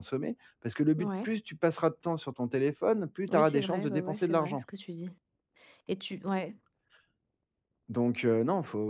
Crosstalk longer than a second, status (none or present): present